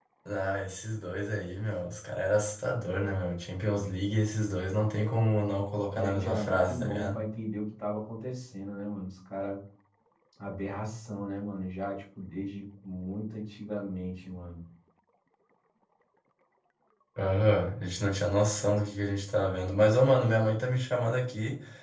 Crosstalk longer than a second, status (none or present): present